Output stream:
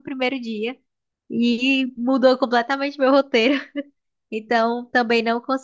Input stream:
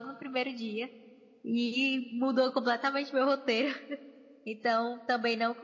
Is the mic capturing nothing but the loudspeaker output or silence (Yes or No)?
Yes